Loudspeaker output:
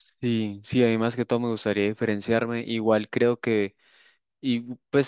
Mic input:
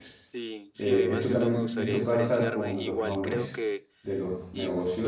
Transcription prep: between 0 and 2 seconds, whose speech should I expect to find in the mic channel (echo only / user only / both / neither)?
both